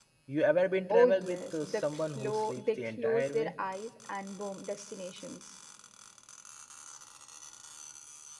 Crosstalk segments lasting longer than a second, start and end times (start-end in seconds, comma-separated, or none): 0.9-3.5